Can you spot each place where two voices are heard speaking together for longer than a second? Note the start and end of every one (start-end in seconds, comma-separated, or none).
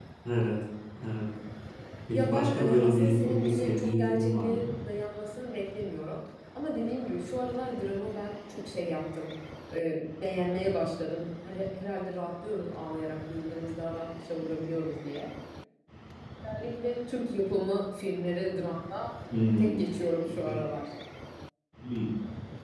2.1-4.7